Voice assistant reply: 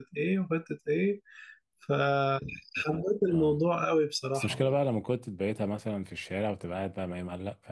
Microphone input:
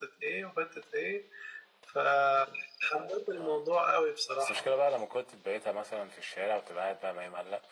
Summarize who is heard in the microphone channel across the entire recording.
echo only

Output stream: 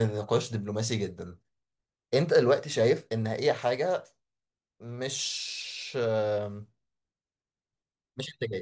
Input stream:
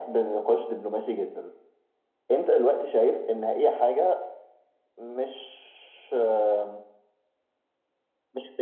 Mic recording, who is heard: echo only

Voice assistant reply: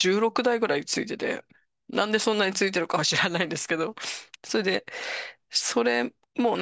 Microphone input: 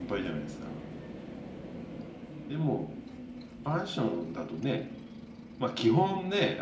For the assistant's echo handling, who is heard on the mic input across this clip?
user only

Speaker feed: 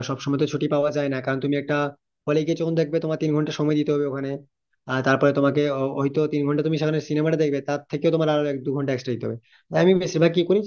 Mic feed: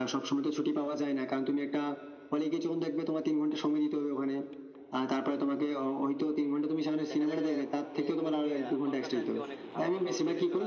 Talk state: both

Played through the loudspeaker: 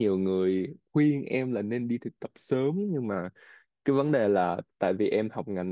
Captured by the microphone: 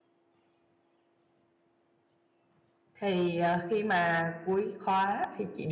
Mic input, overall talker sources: user only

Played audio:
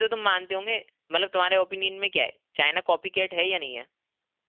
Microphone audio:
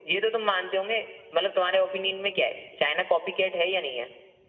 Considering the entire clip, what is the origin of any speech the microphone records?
echo only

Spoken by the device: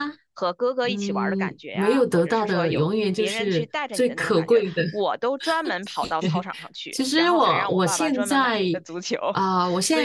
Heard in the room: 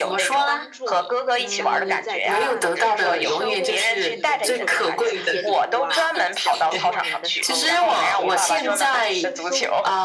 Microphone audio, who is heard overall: both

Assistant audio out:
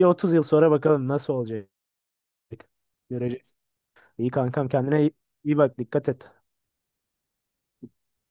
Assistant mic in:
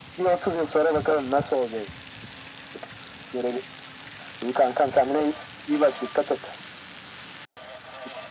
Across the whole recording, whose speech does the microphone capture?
echo only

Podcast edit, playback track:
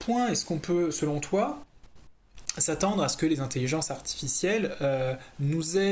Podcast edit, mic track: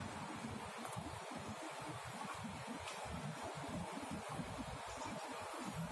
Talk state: neither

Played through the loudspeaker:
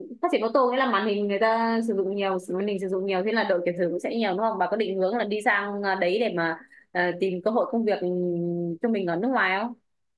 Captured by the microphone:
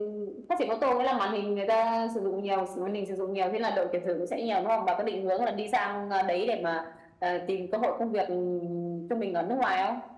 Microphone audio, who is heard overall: echo only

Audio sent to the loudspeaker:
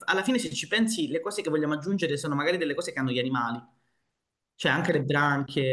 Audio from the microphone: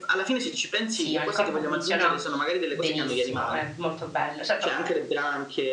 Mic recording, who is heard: both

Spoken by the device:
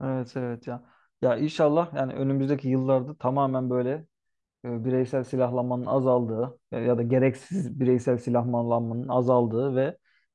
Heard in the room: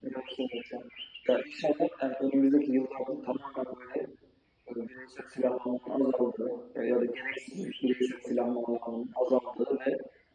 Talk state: echo only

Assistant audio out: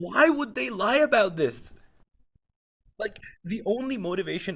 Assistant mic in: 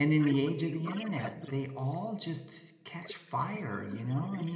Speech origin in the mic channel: both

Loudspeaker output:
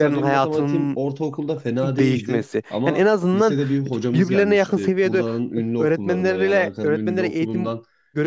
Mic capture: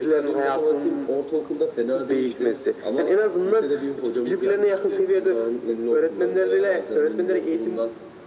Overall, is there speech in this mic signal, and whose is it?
echo only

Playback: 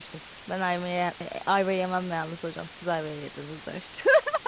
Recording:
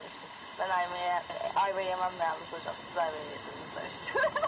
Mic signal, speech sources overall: echo only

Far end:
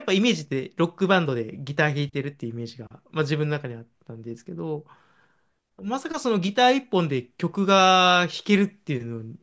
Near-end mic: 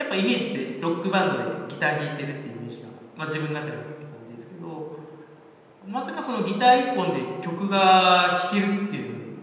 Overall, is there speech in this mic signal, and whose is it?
echo only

